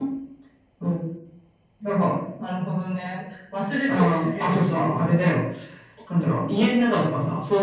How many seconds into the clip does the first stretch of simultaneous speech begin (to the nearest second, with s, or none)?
4 s